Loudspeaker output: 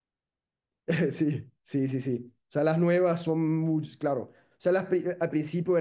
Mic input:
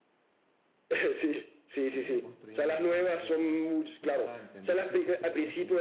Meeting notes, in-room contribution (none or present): present